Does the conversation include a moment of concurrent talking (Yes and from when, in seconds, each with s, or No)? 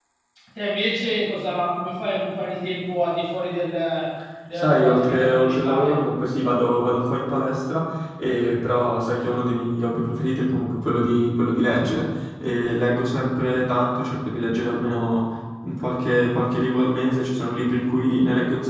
Yes, from 4.6 s